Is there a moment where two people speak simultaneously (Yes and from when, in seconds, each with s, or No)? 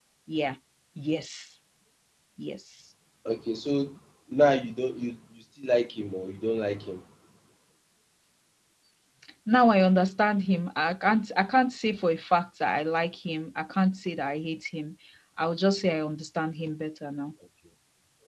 No